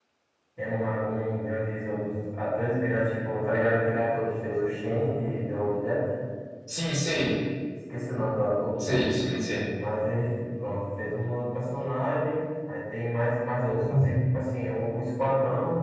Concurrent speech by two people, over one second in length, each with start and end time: none

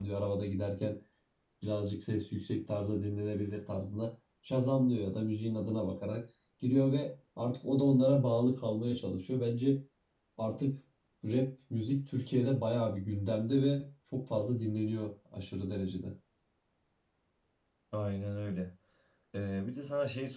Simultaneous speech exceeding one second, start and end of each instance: none

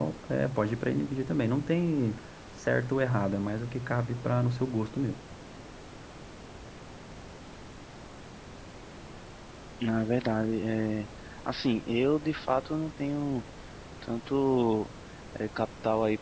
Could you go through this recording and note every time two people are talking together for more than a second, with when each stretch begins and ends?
none

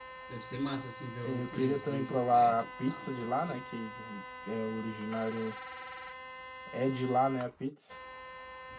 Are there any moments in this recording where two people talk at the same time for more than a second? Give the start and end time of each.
1.2-3.7

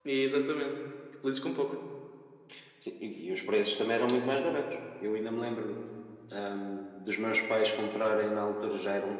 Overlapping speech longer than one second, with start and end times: none

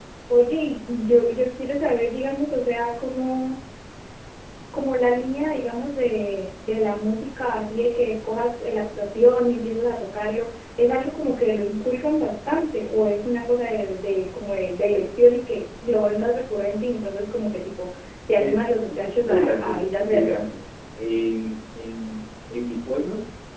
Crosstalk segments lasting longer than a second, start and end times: 18.4-20.4

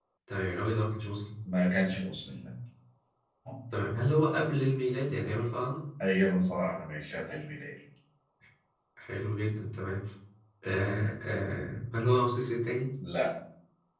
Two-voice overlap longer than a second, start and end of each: none

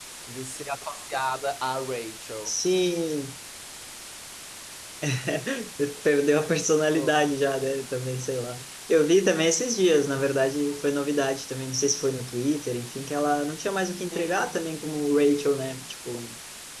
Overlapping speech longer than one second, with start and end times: none

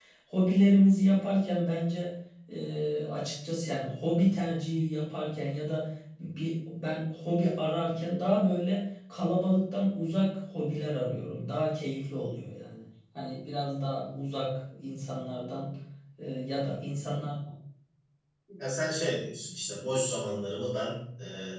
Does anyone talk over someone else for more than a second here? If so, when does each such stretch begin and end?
none

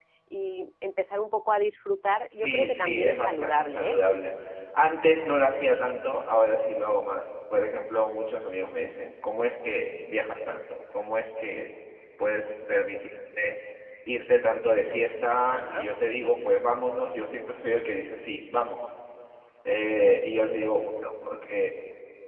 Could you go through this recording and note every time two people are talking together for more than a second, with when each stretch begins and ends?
2.3-4.0

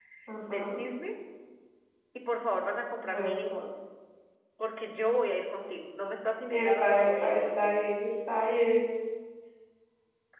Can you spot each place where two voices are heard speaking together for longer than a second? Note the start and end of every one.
6.5-7.8

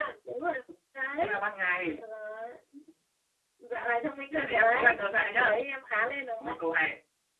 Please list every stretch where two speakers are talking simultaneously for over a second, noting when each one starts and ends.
4.3-5.6

